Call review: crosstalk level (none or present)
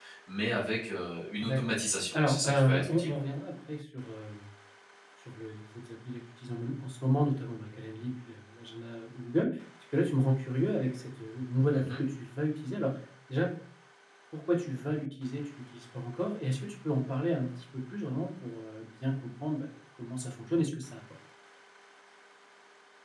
present